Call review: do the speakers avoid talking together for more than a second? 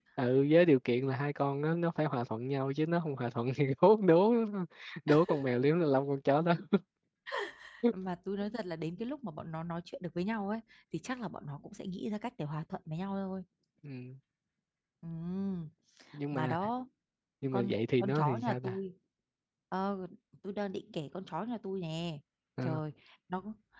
No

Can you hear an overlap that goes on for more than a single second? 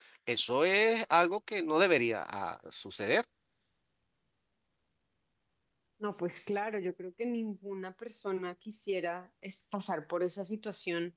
No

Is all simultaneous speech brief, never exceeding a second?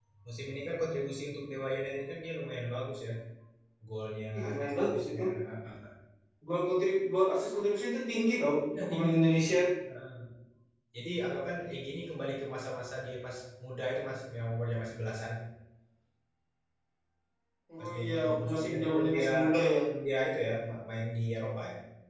No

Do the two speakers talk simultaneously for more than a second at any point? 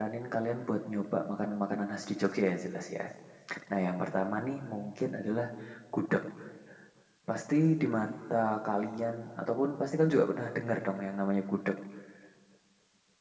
No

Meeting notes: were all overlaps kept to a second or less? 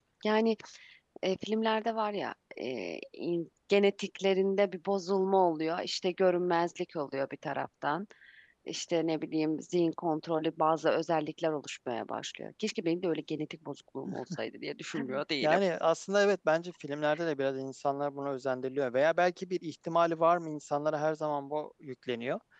Yes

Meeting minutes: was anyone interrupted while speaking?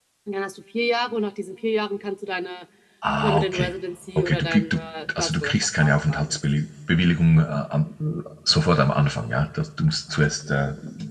Yes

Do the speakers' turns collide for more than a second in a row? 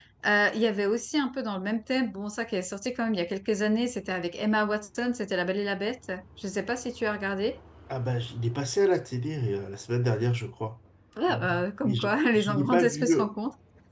Yes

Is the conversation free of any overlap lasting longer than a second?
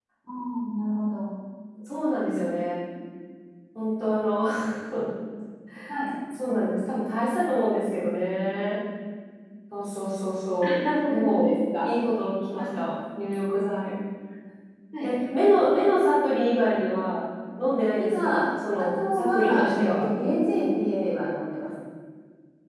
No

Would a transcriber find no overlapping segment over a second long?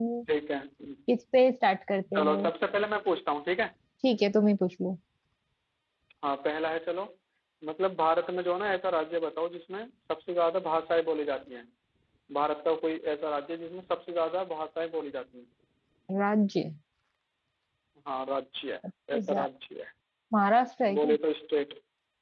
Yes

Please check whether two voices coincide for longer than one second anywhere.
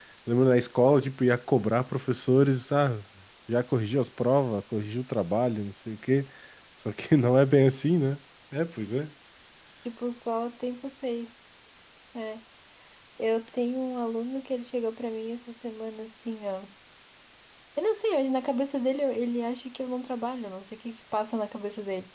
No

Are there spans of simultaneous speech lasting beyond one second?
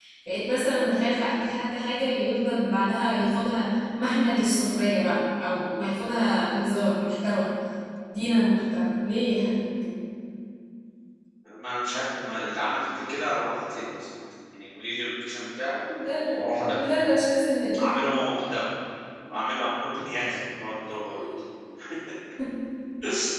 No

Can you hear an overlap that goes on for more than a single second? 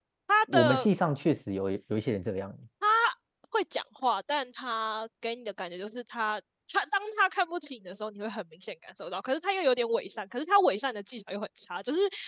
No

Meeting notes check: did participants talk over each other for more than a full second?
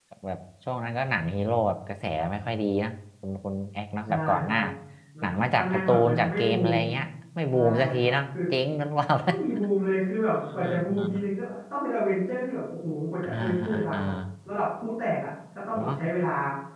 Yes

